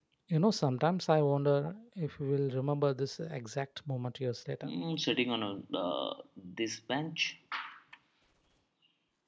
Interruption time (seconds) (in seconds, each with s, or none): none